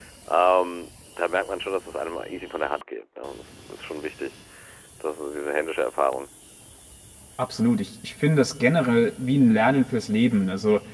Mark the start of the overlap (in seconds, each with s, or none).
none